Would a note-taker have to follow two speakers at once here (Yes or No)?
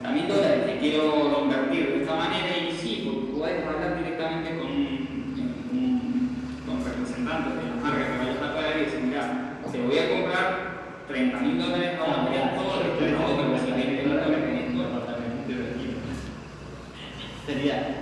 Yes